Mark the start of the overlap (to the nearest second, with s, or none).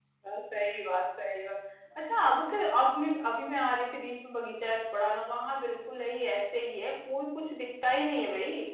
none